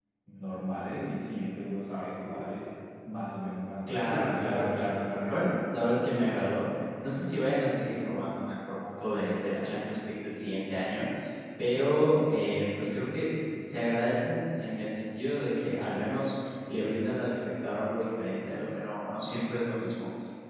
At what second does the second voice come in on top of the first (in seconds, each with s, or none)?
3.9 s